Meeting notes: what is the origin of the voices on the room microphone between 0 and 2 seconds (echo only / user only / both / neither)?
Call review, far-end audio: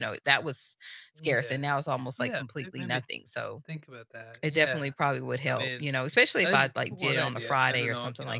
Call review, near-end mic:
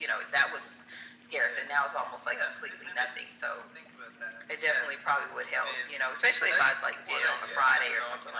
echo only